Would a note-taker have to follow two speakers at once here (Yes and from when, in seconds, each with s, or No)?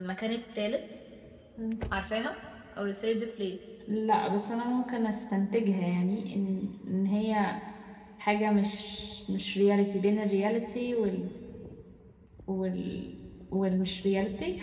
No